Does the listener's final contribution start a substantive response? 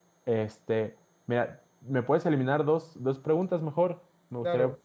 Yes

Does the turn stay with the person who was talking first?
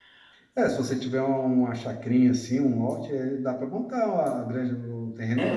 No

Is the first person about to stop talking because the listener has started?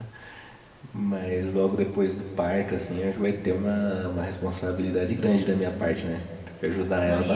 Yes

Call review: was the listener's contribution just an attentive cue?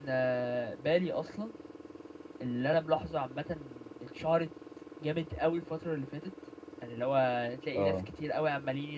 Yes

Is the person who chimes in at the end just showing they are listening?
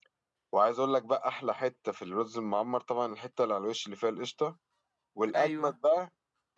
Yes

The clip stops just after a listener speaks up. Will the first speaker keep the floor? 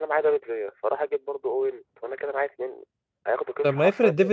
No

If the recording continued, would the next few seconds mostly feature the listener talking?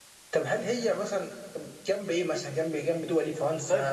Yes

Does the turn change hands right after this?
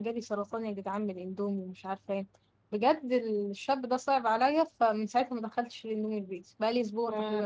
Yes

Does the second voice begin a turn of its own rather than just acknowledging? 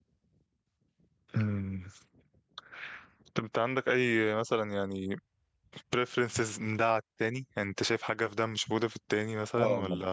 Yes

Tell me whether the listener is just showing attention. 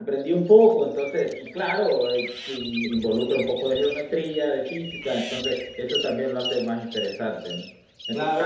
No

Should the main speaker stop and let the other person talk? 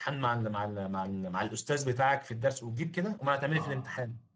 Yes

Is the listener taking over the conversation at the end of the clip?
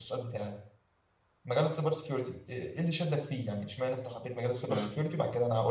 No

